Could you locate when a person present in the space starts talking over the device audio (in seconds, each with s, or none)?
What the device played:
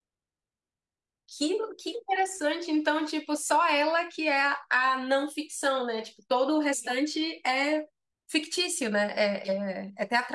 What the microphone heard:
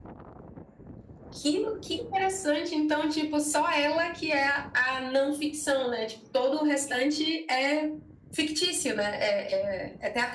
none